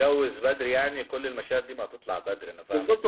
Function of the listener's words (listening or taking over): taking over